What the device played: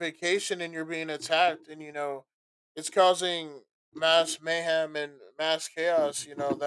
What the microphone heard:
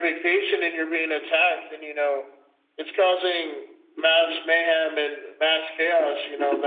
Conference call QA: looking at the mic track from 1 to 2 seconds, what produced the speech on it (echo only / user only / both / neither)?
echo only